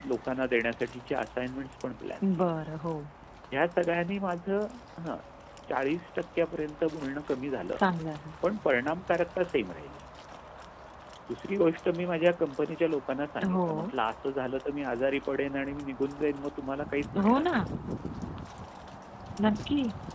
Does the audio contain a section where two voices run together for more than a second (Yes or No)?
No